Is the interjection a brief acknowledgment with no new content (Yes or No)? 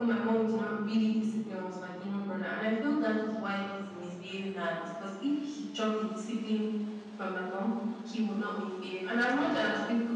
Yes